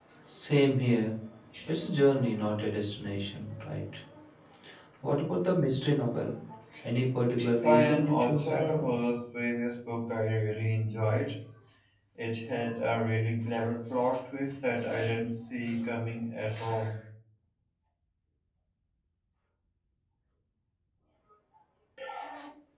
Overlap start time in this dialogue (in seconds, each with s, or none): 7.4 s